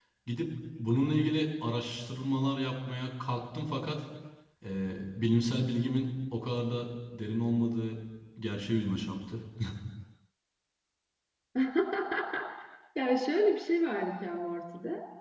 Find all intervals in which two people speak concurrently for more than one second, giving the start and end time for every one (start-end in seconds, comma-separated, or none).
none